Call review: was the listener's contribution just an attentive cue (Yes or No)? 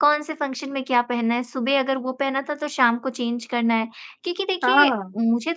Yes